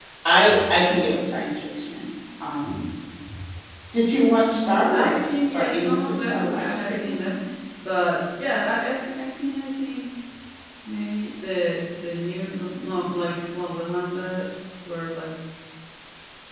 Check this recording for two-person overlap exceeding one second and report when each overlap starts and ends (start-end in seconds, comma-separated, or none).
4.5-7.3